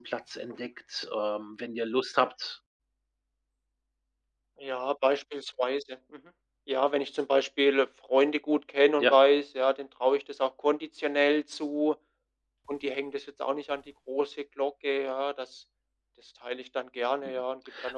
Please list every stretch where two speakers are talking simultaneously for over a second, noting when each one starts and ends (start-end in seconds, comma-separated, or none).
none